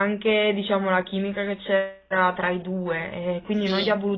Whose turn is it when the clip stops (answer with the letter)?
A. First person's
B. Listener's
A